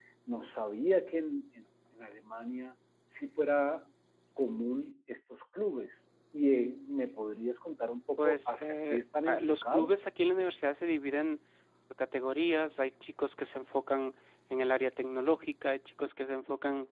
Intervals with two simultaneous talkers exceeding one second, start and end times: 8.2-9.9

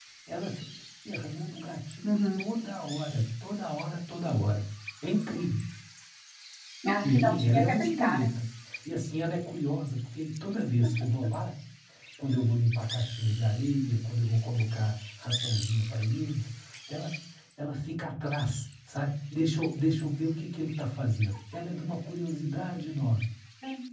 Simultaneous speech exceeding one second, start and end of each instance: 7.0-8.3

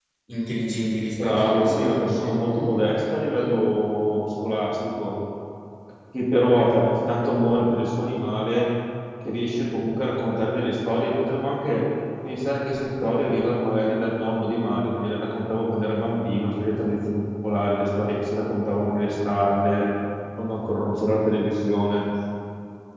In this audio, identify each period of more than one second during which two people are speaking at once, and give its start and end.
1.1-2.3

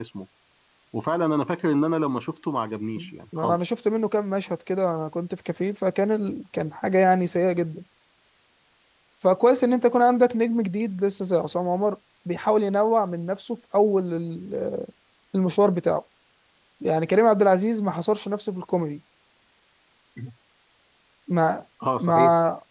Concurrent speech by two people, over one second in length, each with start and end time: none

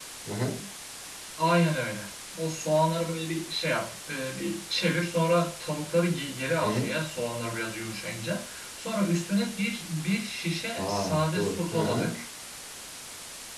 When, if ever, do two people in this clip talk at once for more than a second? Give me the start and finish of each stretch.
10.8-12.1

